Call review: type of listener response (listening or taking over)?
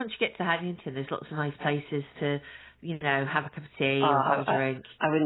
taking over